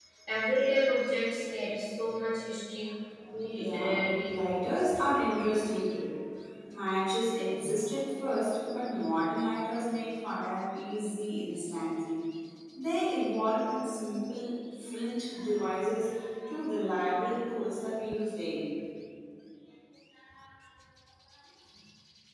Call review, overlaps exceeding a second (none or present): present